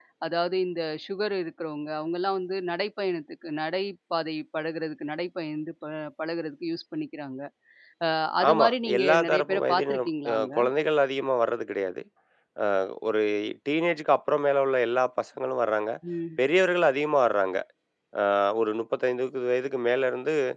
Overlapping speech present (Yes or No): Yes